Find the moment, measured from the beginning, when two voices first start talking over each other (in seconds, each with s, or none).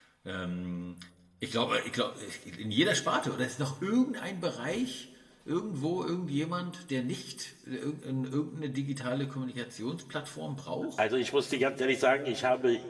none